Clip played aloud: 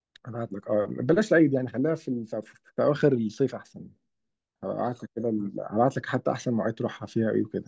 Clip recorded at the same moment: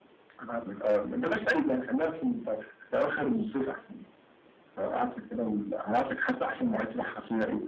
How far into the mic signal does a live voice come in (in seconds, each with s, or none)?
none